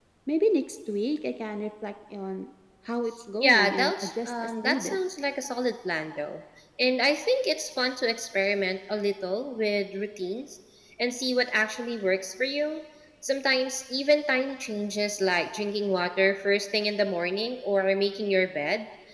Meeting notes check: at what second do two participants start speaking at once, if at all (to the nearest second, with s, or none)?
3 s